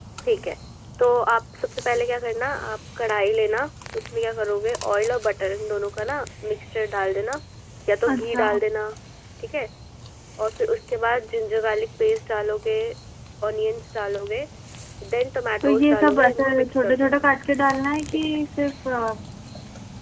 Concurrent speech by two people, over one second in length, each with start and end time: 15.6-17.2

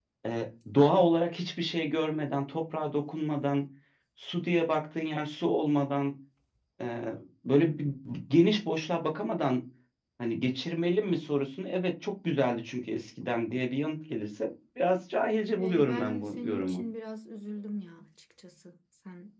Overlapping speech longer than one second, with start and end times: 15.6-16.8

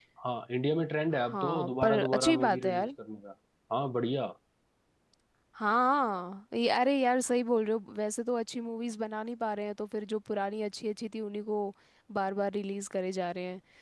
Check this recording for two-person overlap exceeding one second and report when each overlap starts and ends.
1.1-2.9

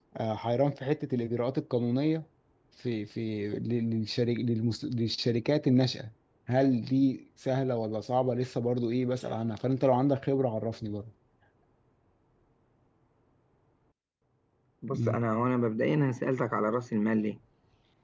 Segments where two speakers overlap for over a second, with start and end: none

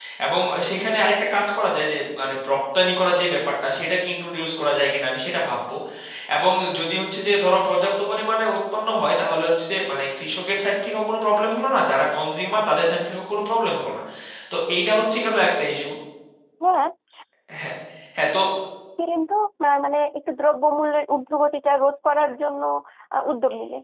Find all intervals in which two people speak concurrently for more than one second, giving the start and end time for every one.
none

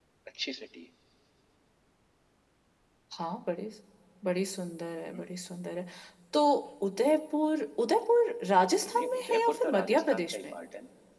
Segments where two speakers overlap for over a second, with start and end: 8.9-10.5

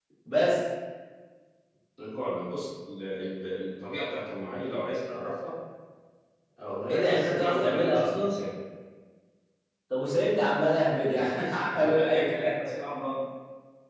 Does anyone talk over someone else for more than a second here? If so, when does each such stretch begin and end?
6.9-8.3, 10.8-12.5

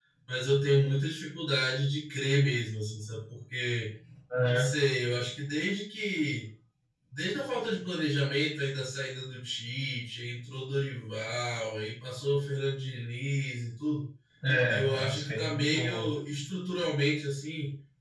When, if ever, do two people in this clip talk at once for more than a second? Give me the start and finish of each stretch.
14.7-16.1

